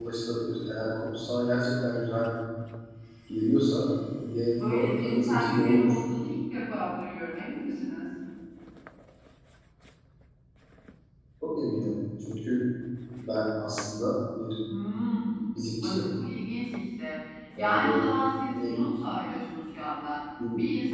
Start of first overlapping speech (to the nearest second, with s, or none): 5 s